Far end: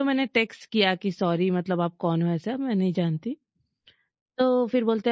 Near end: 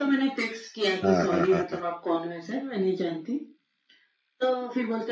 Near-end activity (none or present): present